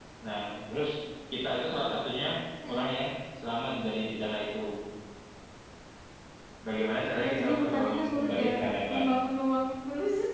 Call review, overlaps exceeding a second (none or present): present